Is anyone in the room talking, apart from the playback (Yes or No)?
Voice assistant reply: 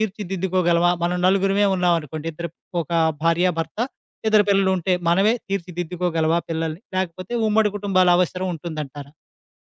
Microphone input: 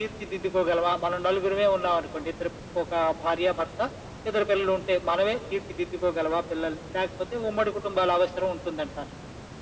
No